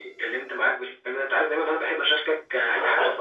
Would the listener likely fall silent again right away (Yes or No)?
No